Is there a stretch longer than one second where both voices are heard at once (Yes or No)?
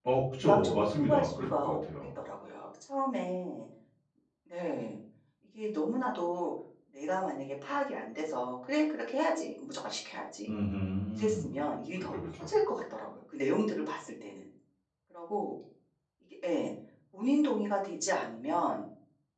Yes